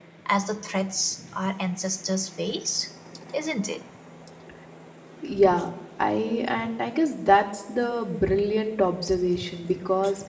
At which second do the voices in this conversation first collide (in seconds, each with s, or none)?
none